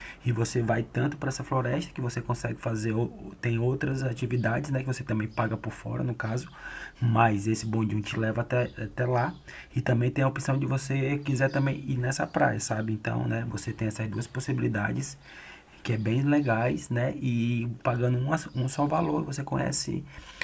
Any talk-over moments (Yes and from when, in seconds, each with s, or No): No